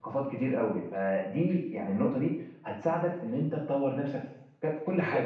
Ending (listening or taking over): taking over